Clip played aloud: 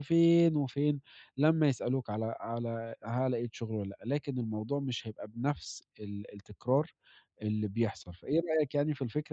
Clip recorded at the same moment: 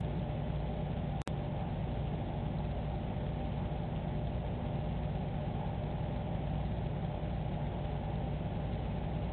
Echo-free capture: Yes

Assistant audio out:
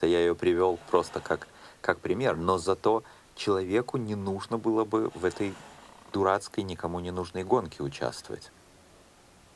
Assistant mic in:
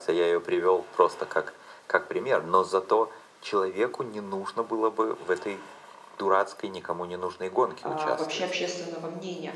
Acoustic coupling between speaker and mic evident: Yes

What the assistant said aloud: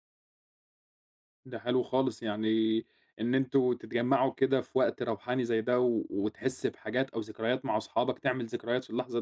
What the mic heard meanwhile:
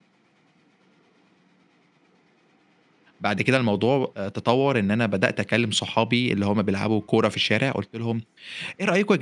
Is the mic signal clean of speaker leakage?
Yes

